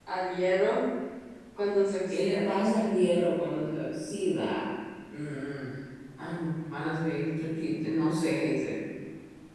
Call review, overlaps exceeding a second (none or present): none